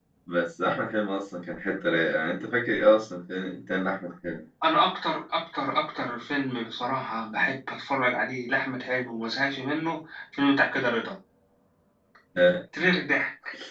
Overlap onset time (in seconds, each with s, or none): none